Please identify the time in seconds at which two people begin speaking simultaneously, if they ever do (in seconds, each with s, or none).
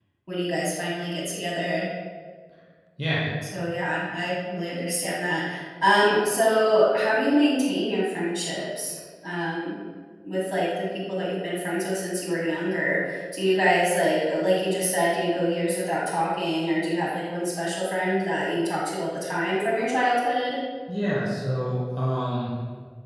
none